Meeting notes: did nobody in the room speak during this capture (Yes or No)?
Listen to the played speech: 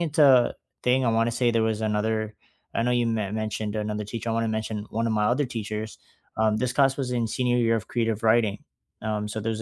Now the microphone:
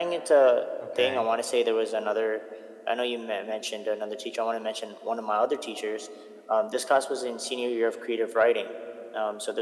No